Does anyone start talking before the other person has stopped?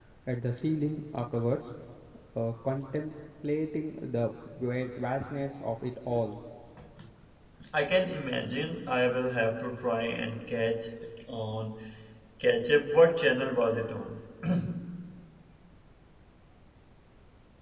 No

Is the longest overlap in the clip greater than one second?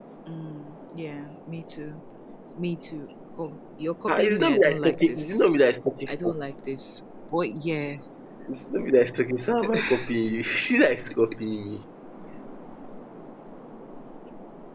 Yes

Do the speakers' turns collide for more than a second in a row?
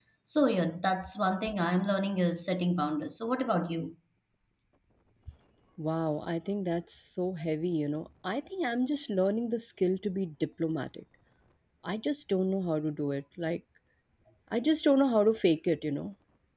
No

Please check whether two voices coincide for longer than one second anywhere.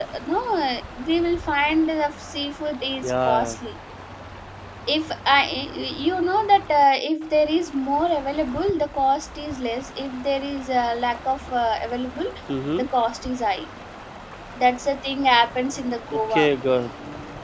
No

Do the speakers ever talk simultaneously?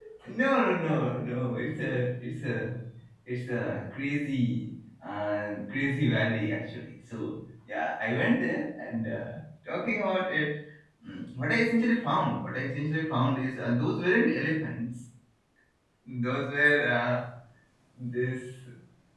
No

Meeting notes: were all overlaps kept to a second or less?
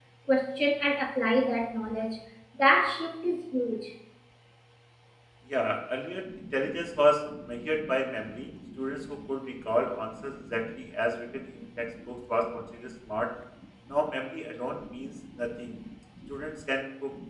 Yes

